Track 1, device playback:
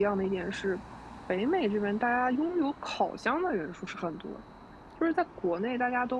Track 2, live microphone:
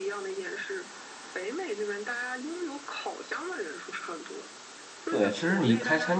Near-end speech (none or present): present